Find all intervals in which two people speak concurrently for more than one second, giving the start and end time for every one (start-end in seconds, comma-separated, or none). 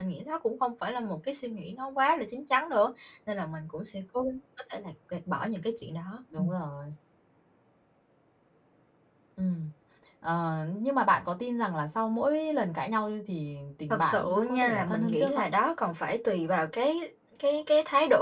13.9-15.4